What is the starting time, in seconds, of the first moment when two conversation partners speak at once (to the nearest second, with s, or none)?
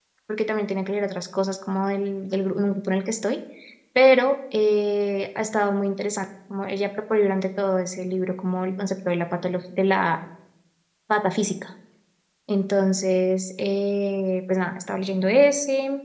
none